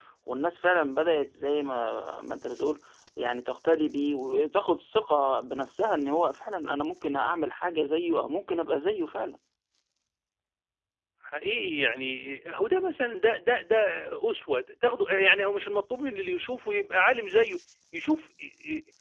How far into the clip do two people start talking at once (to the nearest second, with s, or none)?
none